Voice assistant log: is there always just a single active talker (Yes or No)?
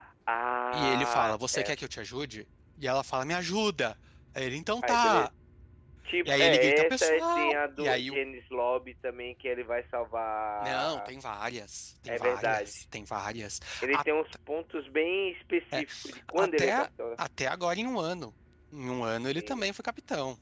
No